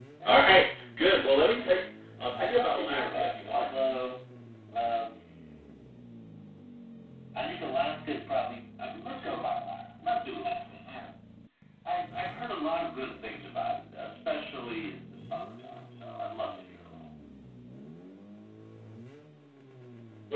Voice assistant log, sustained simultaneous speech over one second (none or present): present